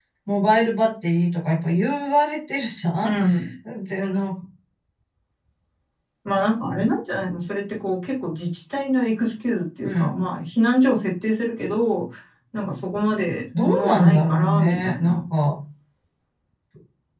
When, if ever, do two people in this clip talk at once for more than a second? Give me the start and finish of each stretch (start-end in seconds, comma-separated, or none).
13.6-15.2